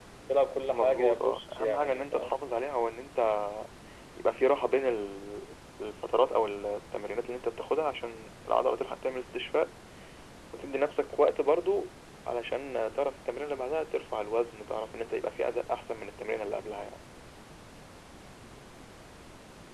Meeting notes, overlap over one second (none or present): present